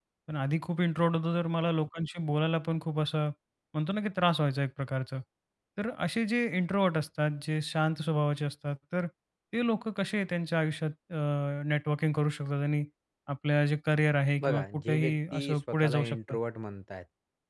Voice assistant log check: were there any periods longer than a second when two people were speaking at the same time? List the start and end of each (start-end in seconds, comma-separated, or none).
14.4-16.4